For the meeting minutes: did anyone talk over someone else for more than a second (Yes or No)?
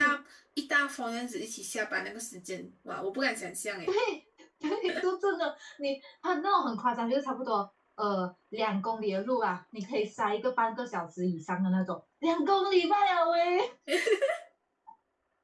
No